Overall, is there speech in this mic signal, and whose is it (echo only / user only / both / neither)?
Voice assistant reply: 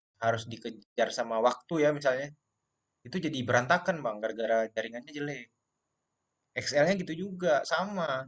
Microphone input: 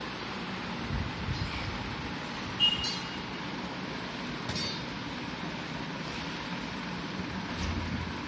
neither